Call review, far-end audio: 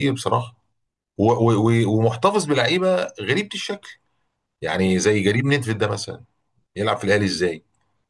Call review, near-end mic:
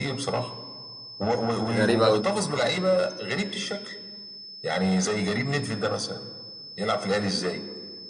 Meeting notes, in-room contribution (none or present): present